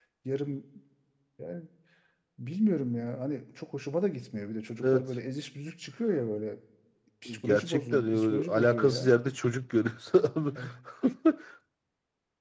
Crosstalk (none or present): present